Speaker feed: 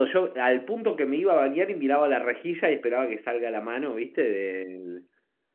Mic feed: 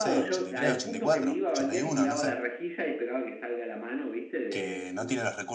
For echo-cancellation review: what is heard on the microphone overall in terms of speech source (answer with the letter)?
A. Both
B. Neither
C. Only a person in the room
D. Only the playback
A